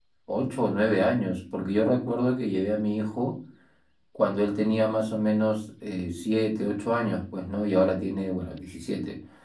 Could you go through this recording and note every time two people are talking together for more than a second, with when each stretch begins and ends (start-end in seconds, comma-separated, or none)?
none